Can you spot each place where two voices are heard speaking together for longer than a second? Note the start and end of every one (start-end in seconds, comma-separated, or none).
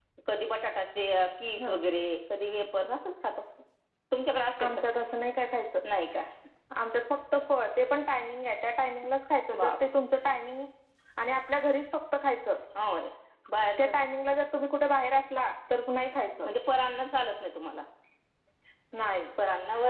none